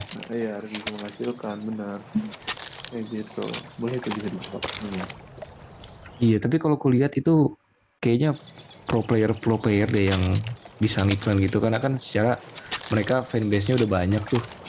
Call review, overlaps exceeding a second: none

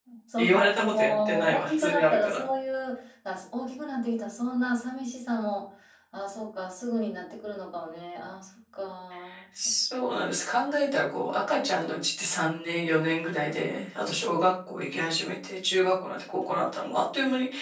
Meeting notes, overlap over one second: present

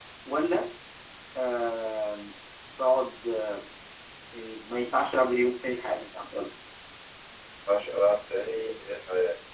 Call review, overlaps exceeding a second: none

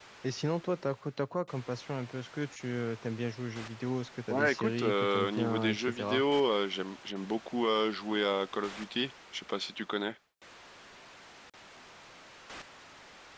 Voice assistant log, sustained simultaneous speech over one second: present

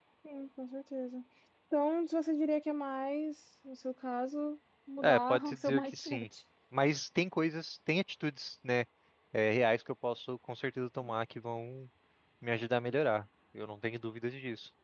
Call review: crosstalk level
present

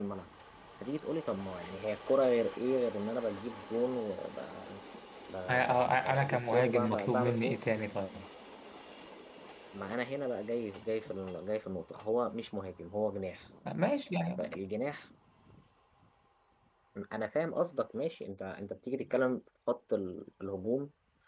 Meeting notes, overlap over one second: present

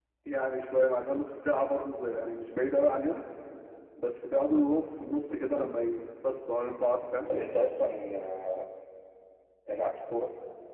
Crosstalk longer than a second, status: none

